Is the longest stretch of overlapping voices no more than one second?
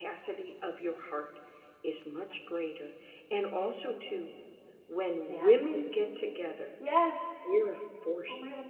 Yes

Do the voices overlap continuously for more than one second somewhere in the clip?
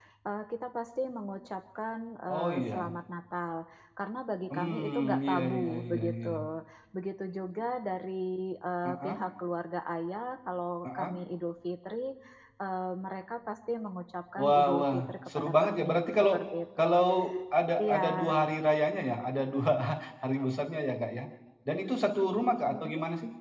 Yes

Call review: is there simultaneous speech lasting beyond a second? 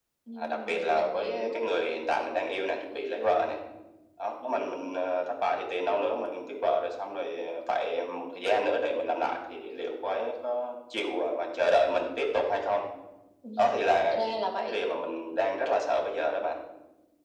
Yes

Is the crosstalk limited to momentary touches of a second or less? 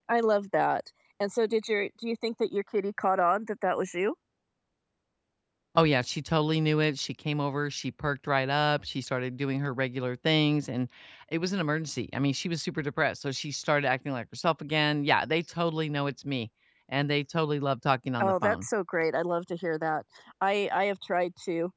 Yes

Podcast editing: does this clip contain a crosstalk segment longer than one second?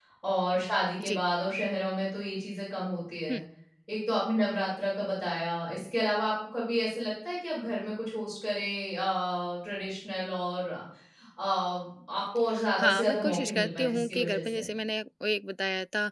Yes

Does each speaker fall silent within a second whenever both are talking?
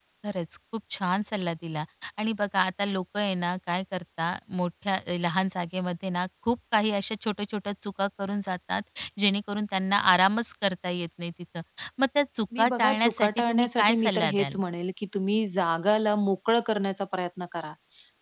No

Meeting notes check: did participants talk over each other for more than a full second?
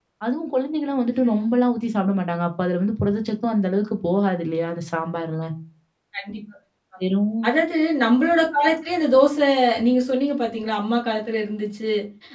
No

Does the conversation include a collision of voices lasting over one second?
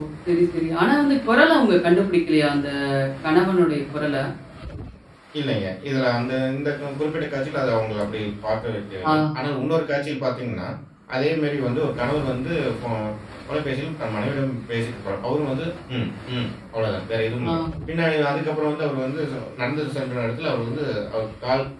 No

